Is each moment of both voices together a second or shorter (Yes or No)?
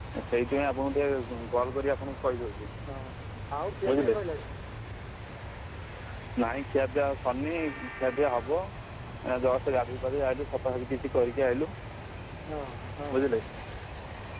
Yes